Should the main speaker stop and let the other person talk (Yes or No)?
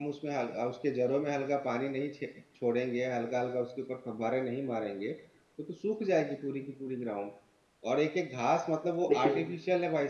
No